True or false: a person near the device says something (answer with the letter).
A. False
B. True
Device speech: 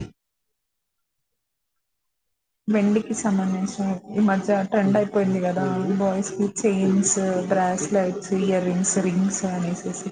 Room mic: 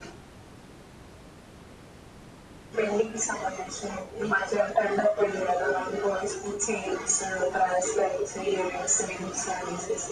A